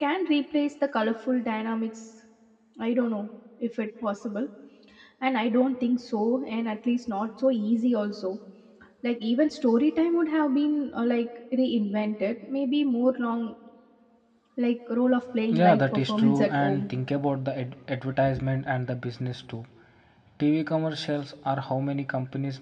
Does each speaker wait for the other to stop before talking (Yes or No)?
No